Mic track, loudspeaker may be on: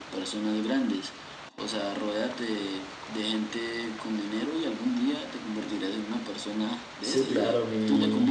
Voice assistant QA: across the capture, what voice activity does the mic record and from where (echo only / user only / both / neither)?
both